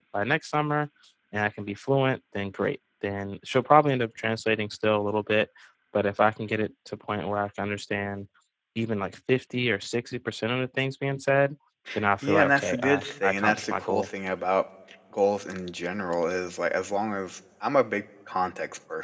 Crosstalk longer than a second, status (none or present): present